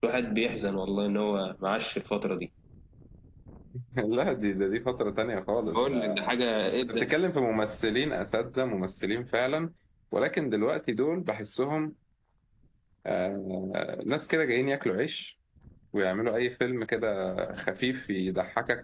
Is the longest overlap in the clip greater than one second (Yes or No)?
No